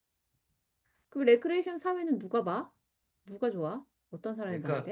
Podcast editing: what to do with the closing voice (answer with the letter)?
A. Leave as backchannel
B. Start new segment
B